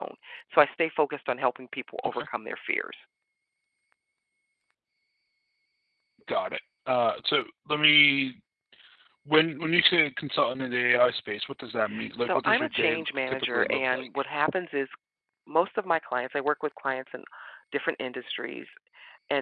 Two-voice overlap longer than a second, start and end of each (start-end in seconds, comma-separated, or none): 12.2-14.1